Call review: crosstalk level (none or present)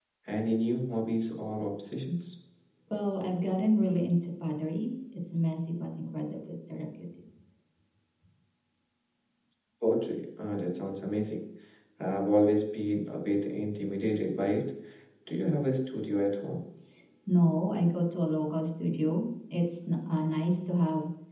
none